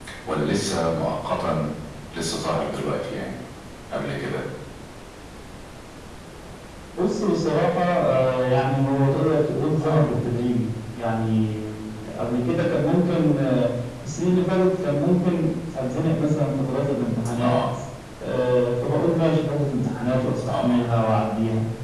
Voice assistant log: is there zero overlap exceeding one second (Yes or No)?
Yes